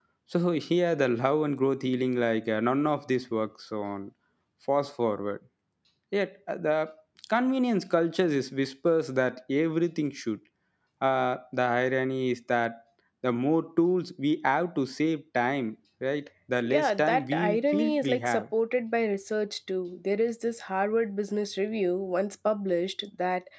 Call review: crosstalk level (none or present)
present